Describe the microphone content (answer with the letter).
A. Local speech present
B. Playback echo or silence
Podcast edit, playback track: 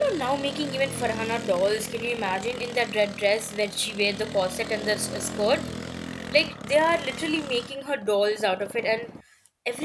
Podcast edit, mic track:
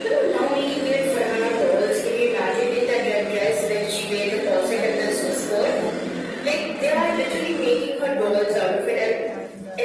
A